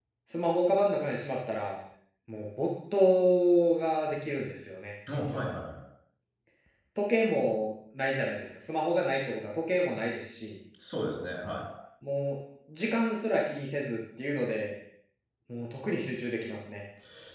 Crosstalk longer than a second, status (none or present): none